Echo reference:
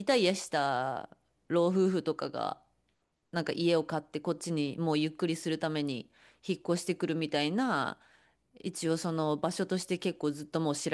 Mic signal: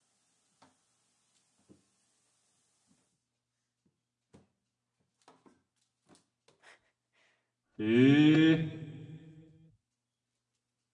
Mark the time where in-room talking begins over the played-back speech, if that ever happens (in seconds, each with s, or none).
7.8 s